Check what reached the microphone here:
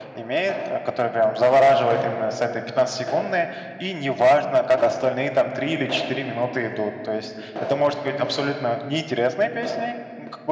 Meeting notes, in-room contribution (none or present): none